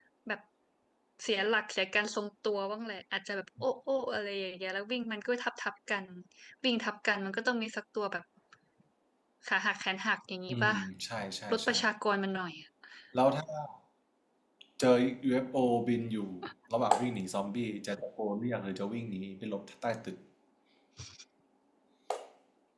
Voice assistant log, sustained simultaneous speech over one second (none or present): none